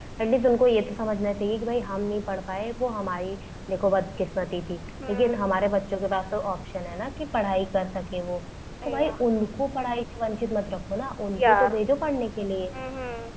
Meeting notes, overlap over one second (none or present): none